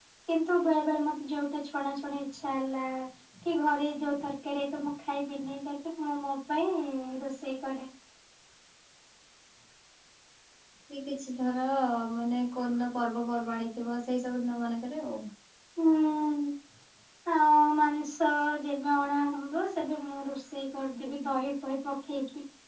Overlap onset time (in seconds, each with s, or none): none